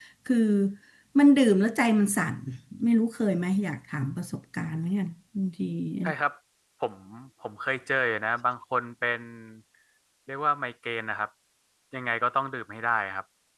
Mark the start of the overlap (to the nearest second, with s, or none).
none